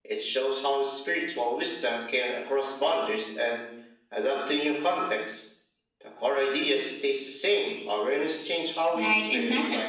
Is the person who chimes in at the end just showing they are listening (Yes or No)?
No